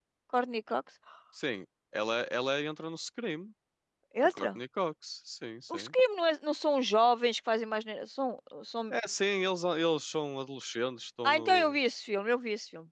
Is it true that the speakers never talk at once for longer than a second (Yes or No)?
Yes